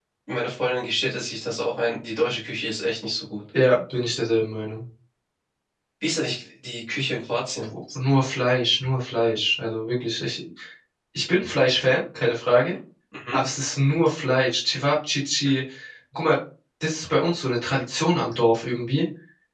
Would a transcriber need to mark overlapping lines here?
No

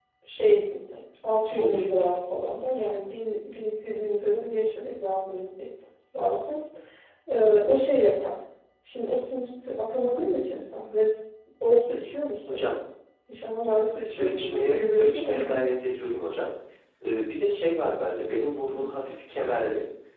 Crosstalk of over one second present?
Yes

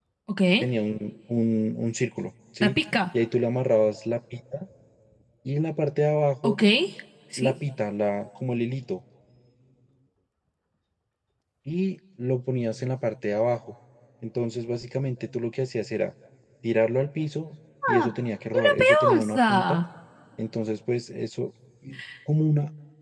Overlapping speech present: Yes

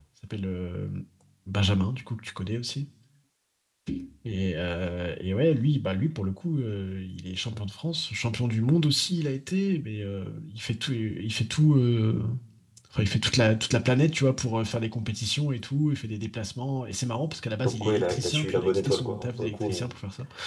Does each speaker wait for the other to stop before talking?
No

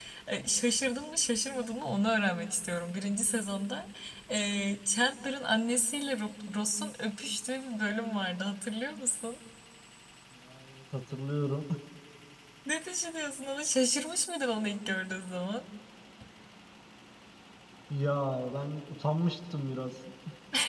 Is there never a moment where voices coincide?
Yes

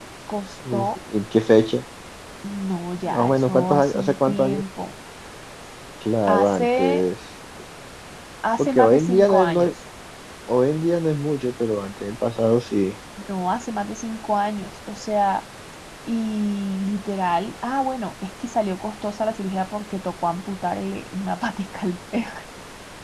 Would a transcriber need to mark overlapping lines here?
Yes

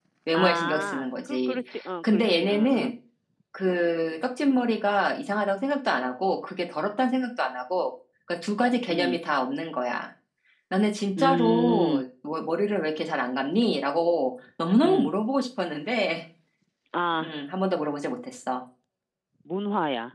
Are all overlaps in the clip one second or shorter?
No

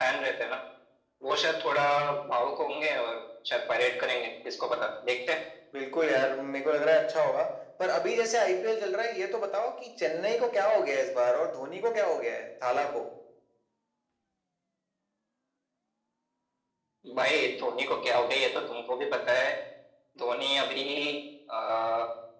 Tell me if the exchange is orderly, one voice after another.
Yes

